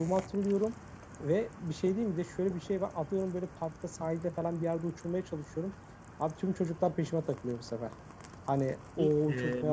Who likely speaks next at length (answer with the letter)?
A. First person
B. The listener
B